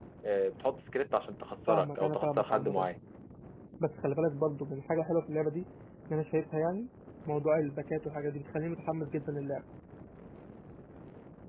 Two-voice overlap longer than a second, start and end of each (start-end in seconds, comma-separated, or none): 1.7-2.9